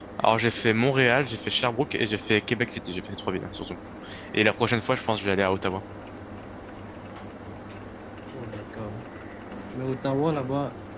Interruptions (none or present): none